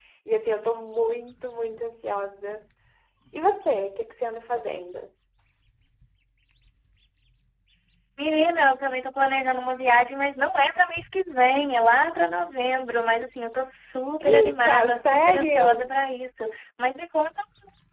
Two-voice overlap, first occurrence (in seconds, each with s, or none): 14.2 s